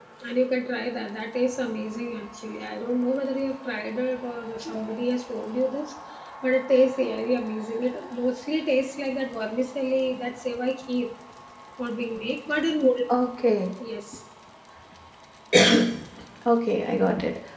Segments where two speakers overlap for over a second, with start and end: none

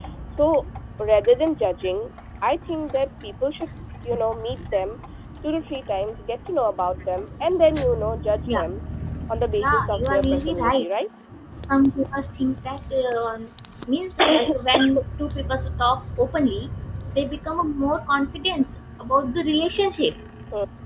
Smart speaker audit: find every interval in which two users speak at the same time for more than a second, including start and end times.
9.6-10.8

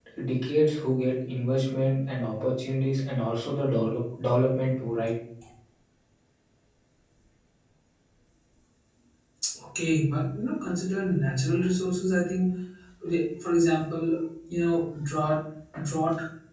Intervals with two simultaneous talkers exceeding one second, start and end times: none

